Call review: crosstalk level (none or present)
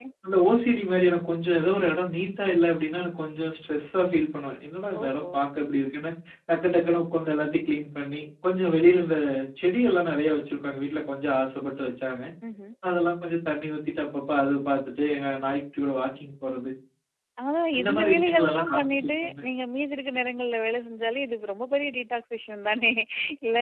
present